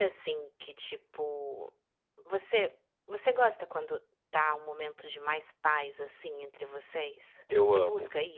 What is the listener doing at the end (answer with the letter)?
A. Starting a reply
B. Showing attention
A